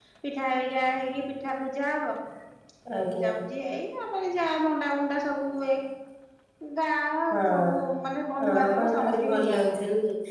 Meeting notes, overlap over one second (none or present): present